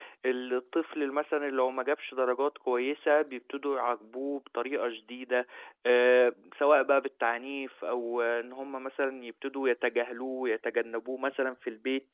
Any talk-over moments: No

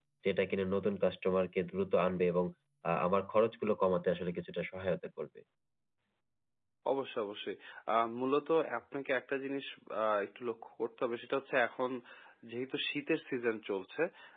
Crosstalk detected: No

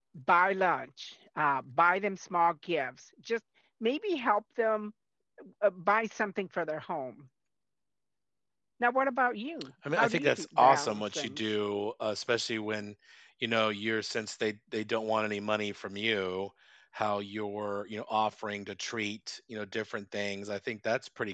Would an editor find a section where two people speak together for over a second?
Yes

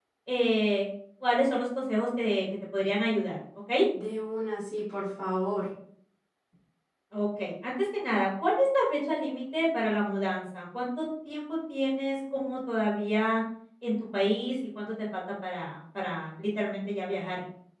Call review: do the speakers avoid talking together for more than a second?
Yes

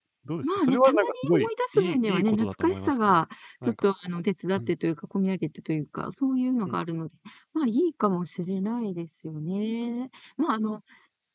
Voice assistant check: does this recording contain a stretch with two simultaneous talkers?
Yes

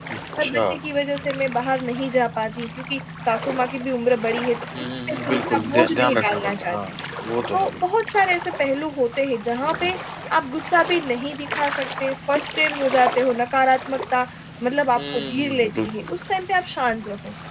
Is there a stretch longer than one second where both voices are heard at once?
Yes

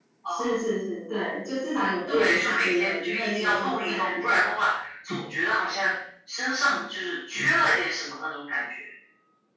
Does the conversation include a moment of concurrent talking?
Yes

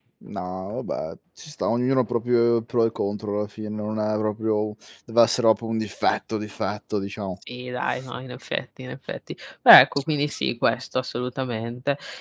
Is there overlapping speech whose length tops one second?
No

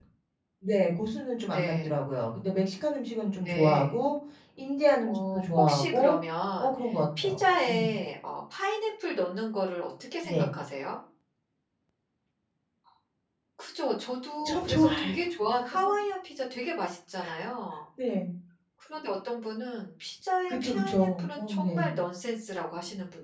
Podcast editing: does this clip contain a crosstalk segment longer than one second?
Yes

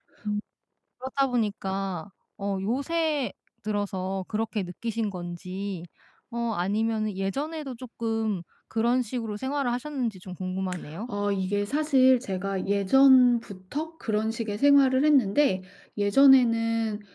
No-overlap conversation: Yes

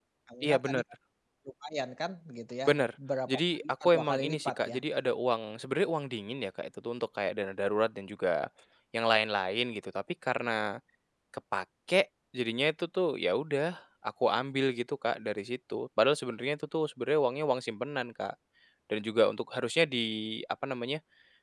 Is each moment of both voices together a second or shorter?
No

